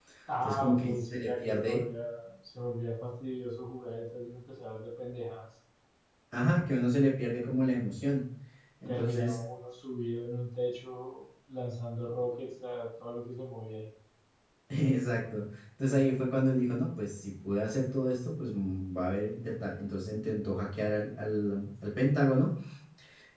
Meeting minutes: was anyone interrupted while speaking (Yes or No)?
Yes